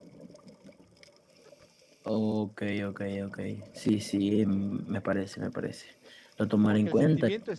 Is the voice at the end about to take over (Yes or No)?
Yes